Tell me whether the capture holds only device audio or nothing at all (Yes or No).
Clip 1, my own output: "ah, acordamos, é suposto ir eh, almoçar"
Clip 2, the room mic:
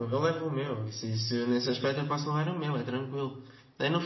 No